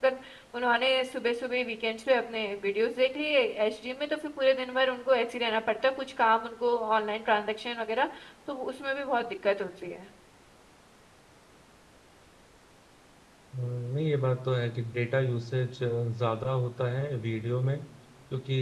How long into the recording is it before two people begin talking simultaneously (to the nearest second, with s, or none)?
none